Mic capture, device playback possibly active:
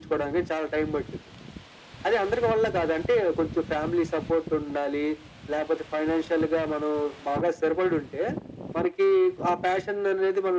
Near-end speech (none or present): none